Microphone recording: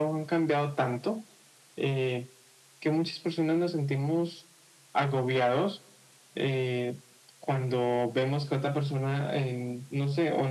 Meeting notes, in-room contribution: none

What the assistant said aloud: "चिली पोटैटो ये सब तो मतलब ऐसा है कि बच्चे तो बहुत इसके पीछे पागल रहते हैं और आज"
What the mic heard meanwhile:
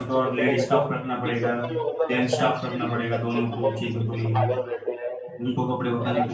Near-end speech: present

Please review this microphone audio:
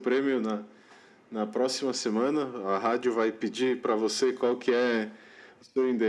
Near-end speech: none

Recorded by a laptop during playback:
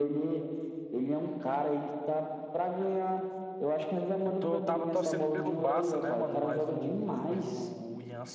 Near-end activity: present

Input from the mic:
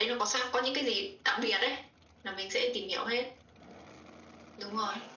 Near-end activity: none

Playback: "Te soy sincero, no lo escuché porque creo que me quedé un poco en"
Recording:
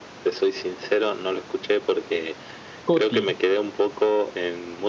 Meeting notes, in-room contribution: present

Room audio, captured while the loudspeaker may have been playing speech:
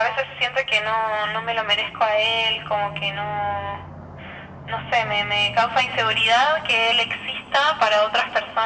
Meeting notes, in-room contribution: none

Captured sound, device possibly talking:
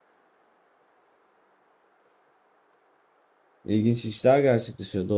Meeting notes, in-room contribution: present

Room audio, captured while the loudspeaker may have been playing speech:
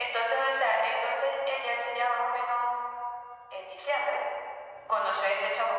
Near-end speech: none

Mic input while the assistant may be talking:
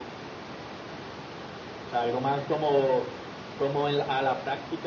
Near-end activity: none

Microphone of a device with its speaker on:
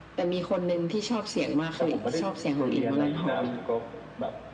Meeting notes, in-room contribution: present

